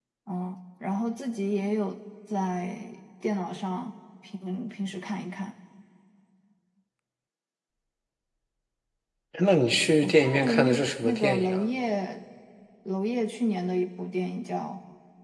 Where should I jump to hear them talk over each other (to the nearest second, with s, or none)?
10 s